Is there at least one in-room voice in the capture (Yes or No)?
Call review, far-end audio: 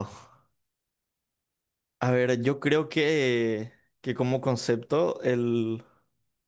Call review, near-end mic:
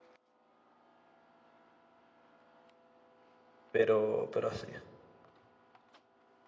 Yes